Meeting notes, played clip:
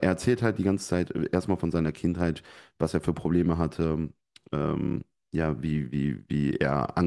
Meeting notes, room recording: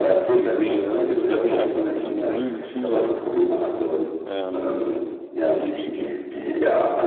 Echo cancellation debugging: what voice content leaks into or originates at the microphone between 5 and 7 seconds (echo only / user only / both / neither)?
both